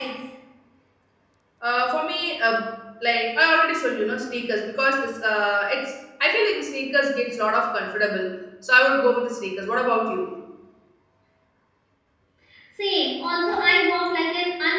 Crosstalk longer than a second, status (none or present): none